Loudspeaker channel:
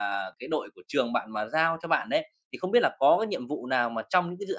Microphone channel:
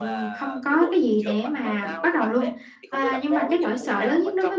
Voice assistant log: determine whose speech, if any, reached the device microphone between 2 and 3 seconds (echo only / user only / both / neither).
both